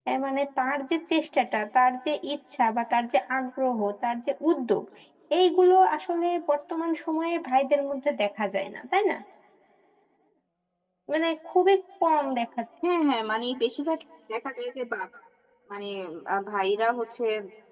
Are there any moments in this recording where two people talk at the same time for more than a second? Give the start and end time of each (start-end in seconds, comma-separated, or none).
none